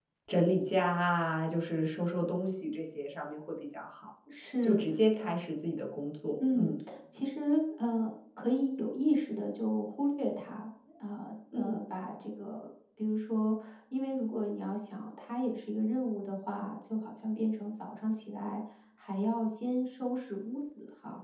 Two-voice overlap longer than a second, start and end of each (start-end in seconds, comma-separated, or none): none